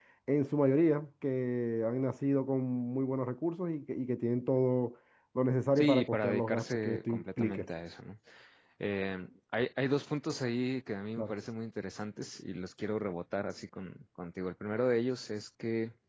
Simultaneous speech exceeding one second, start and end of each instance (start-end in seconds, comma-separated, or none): 5.8-7.7